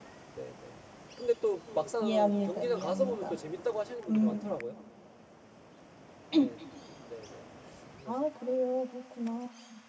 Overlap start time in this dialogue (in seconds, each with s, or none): 2.0 s